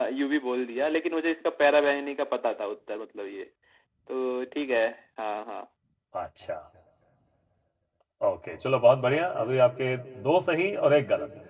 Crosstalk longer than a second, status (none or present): none